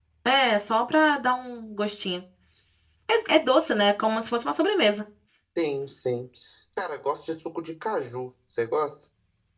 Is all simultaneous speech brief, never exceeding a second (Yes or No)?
Yes